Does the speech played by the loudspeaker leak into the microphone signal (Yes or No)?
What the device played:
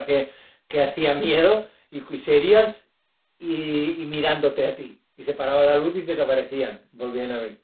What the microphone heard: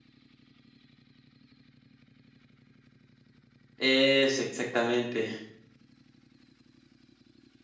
No